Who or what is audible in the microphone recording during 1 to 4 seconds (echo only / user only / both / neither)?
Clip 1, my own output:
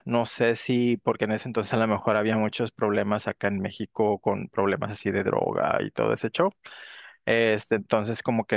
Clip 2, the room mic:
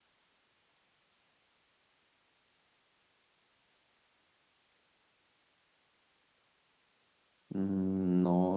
neither